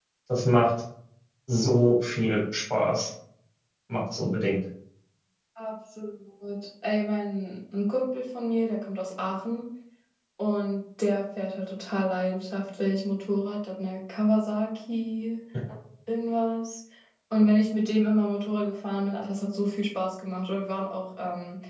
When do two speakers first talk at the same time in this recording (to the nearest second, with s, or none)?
none